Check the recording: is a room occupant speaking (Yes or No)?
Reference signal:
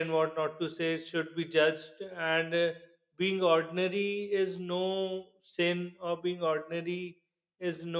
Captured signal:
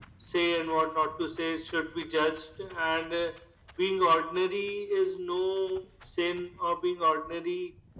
No